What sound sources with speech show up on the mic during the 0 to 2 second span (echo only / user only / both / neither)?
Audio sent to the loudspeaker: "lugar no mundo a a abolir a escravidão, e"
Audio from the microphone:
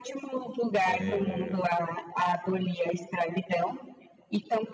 both